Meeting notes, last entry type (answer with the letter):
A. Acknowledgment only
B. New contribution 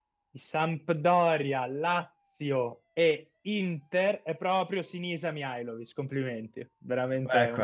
A